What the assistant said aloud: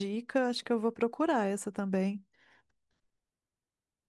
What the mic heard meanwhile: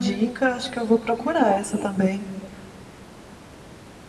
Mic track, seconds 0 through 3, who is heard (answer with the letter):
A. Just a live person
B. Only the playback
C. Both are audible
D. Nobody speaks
B